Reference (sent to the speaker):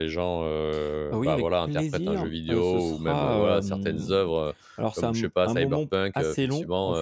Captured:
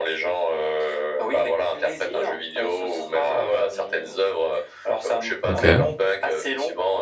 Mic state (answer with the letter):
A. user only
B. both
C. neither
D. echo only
B